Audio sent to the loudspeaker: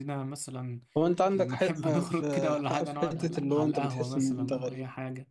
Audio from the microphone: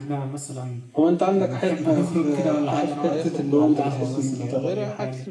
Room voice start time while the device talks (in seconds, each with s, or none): 3.1 s